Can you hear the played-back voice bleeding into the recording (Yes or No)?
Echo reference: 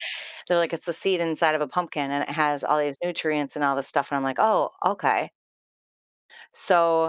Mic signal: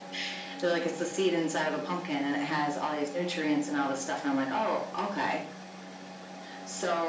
Yes